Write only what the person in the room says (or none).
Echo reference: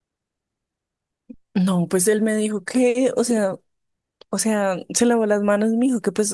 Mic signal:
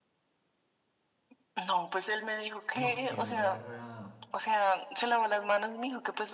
No, que embarra.